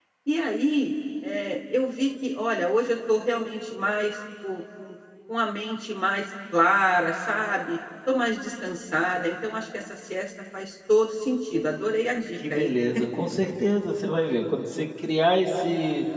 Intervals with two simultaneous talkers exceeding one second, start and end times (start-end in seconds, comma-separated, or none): none